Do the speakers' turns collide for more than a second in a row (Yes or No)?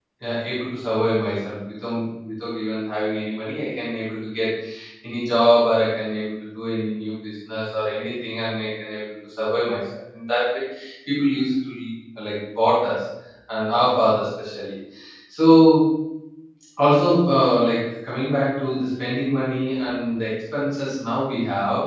No